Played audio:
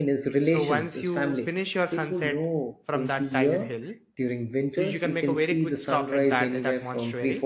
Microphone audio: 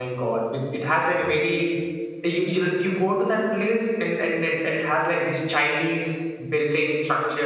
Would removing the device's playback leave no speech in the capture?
No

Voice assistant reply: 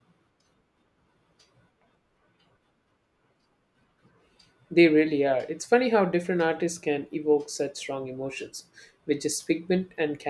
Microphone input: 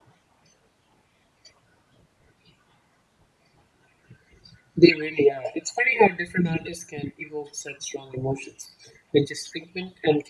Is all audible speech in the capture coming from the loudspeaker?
Yes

